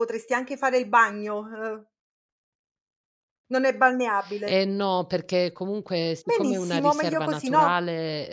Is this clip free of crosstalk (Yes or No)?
No